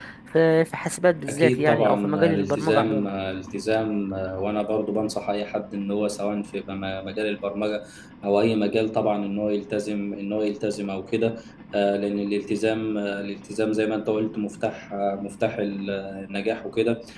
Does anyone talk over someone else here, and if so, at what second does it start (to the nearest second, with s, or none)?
1 s